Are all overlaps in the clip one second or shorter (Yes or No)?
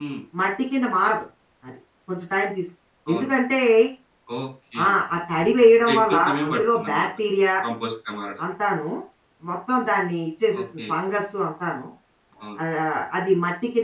No